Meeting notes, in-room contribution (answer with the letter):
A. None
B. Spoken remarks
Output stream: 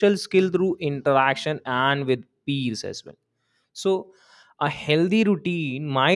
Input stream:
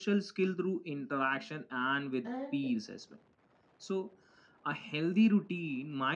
B